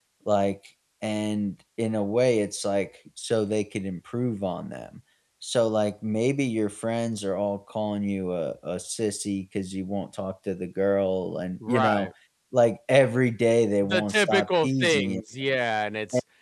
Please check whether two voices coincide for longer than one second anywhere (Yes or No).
Yes